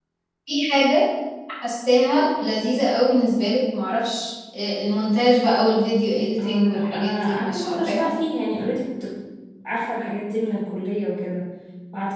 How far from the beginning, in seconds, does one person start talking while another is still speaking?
6 s

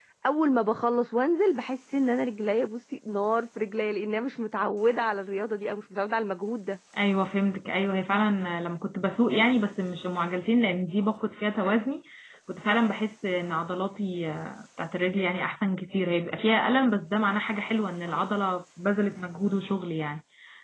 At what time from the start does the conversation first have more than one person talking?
none

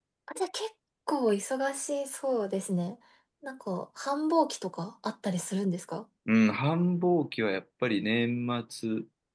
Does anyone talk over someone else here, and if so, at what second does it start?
none

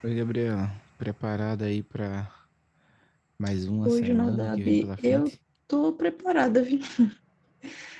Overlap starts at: 4 s

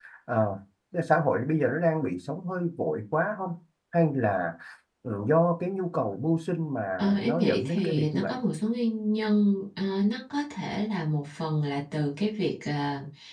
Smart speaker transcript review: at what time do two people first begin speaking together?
7 s

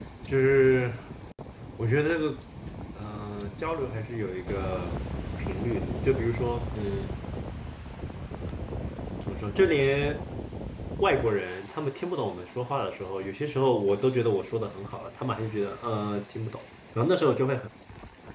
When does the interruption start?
none

